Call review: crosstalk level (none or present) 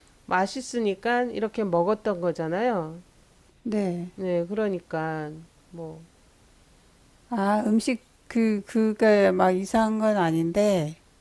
none